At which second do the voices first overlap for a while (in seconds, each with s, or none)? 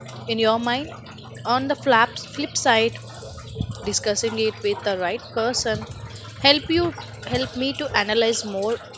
none